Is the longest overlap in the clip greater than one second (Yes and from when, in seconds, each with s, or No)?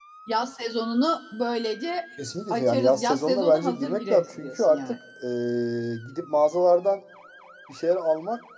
Yes, from 2.5 s